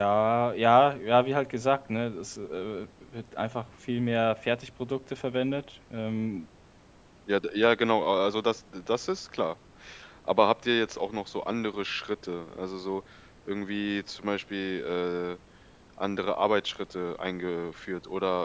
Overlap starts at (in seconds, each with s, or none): none